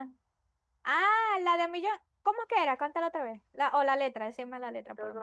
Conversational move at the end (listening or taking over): taking over